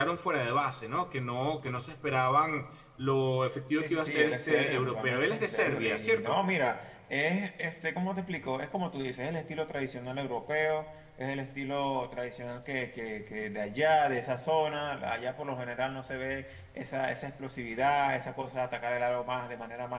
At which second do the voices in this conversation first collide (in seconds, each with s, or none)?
3.7 s